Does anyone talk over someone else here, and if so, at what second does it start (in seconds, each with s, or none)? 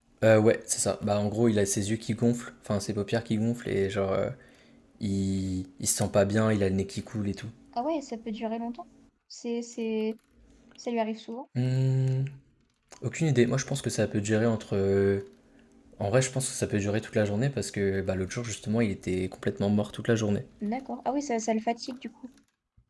none